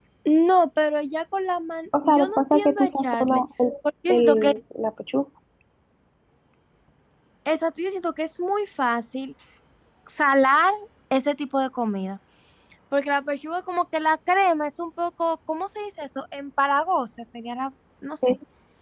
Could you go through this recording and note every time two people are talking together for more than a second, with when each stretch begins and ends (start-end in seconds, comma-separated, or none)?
2.0-3.4